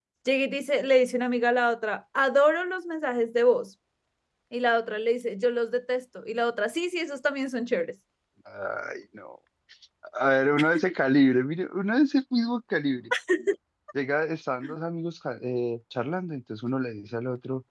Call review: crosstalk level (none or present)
none